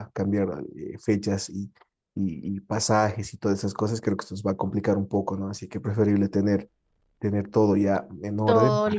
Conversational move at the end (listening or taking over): taking over